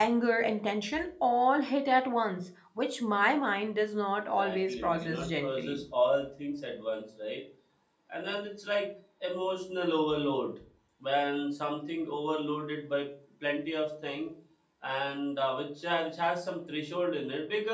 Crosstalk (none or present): present